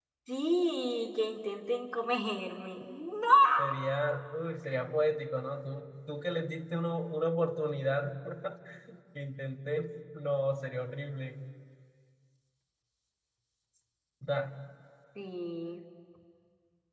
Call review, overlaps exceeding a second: none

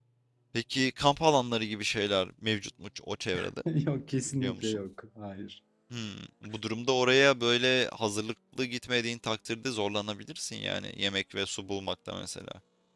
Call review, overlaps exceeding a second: none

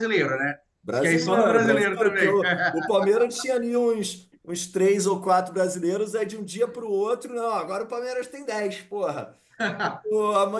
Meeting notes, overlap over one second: present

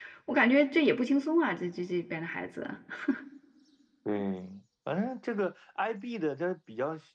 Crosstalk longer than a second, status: none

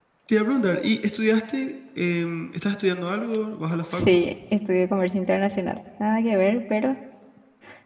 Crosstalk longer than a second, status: none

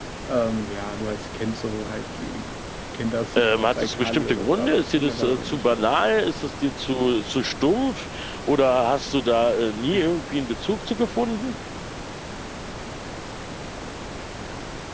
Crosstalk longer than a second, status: present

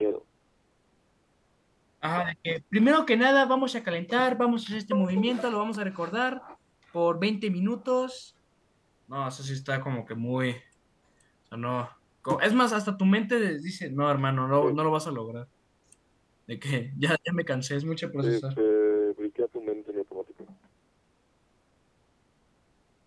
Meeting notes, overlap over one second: none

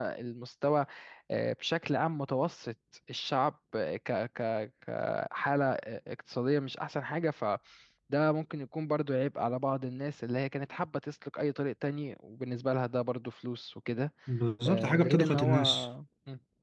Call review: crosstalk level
present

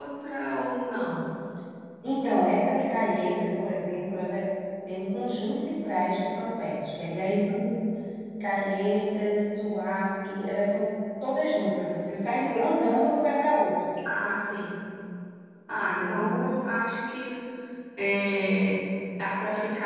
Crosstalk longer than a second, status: none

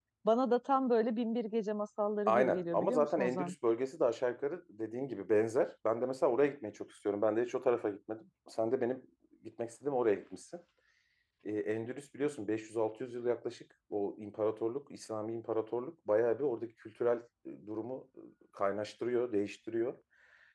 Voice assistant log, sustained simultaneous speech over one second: present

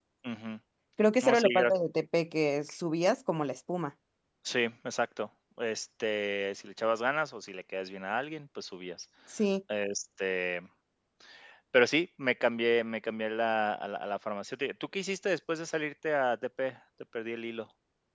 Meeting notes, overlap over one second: none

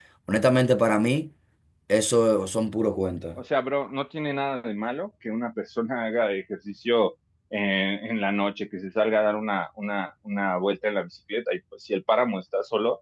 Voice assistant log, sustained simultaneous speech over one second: none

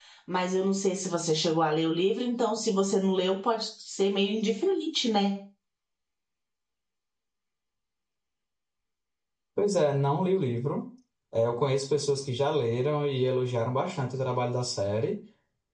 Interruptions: none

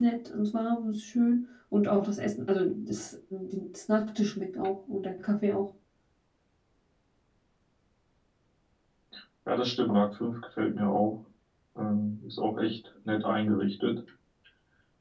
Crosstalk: none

